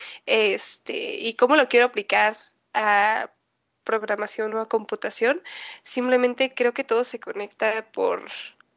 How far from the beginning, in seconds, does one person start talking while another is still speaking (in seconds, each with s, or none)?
none